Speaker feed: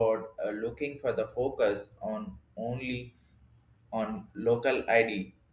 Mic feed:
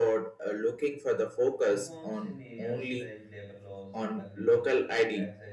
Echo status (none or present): present